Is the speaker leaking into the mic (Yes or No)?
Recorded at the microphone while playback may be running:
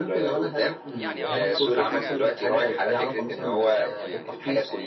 Yes